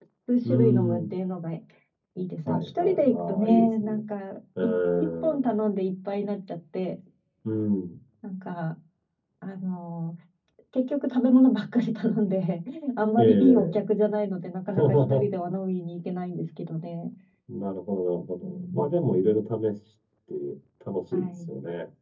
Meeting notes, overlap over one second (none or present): present